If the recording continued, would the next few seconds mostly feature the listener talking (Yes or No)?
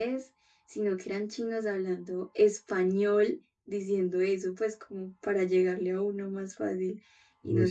No